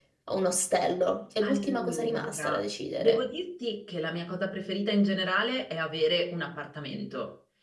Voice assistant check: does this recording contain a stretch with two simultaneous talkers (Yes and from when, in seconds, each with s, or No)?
Yes, from 1.4 s